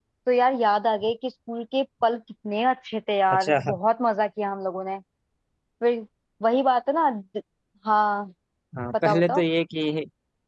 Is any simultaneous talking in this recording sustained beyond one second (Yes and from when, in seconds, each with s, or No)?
No